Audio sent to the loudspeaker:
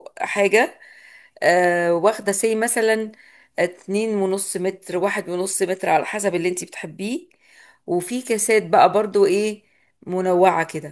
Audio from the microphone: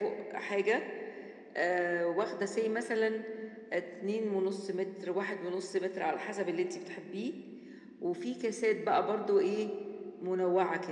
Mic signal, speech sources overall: echo only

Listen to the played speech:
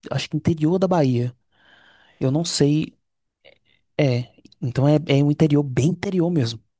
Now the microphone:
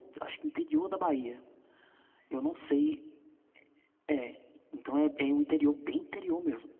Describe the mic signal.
echo only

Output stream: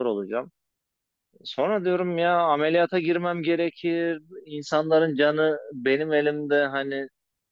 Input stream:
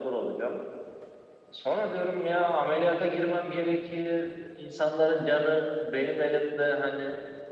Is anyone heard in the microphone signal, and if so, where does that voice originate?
echo only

